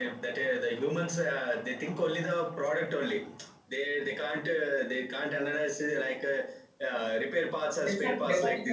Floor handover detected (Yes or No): Yes